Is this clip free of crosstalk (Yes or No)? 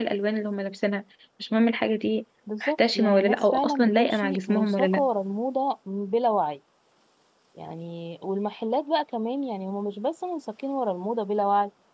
No